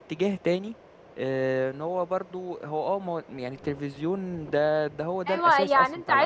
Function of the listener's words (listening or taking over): taking over